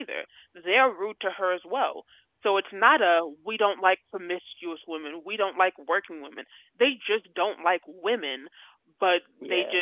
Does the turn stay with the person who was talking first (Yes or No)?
Yes